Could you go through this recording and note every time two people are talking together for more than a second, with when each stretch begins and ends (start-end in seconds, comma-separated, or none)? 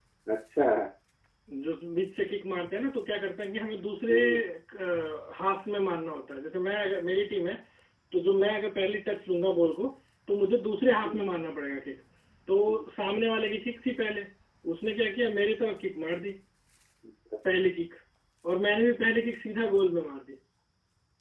none